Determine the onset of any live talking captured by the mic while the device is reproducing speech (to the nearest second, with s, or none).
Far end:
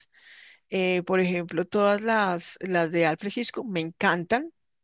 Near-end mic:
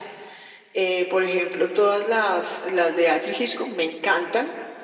none